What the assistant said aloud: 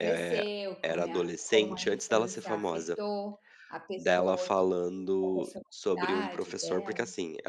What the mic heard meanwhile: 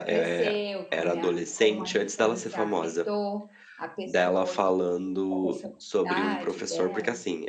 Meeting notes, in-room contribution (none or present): none